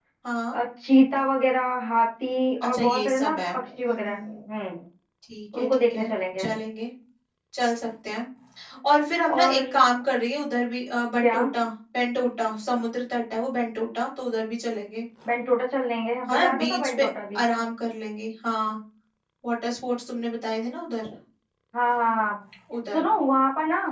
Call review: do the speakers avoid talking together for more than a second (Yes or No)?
No